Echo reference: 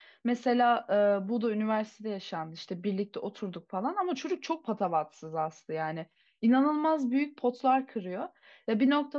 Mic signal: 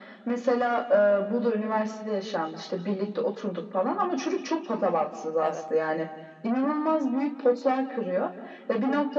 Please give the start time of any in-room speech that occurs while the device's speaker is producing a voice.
5.4 s

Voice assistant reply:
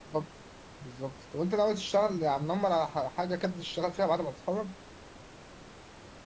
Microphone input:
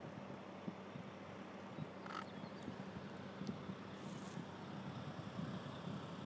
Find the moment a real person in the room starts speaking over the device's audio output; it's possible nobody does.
none

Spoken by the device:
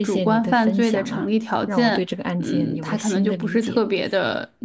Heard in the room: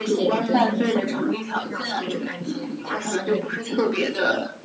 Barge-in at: 0.4 s

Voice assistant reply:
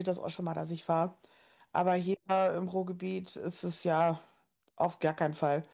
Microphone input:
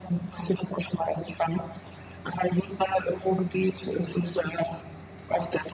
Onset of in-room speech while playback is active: none

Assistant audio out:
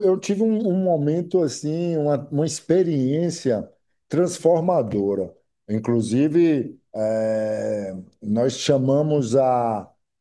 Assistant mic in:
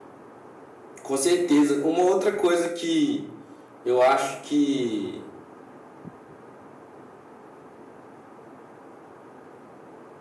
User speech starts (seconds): 1.0 s

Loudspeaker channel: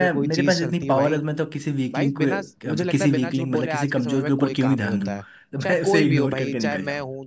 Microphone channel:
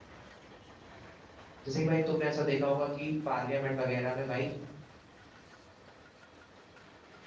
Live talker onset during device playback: 1.6 s

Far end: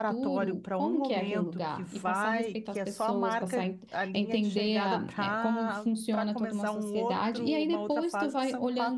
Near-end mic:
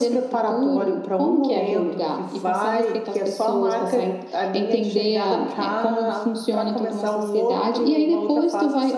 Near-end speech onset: none

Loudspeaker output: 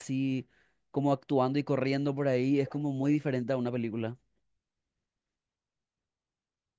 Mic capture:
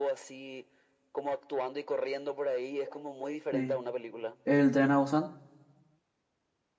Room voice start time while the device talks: 3.5 s

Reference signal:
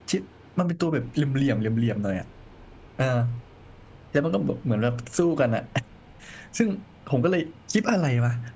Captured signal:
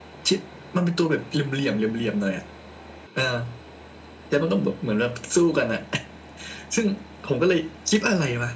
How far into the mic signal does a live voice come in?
none

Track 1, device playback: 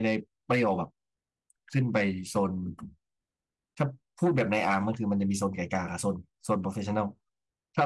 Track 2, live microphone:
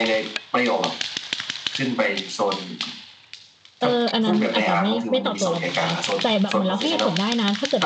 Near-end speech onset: 3.8 s

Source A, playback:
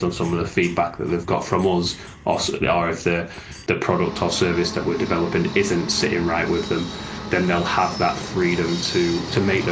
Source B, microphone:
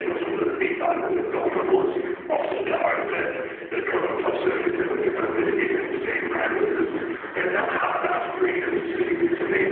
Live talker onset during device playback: none

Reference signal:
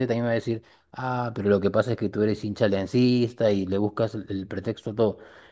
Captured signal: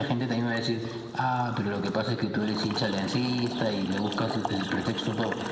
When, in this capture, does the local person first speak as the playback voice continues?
none

